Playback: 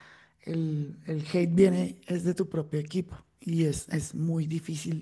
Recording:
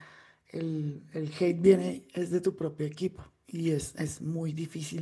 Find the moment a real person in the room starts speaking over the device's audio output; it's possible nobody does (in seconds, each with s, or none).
none